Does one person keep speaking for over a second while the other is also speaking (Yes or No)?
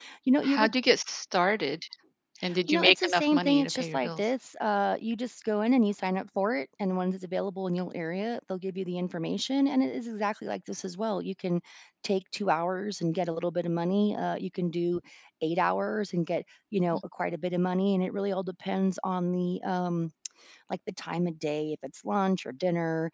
Yes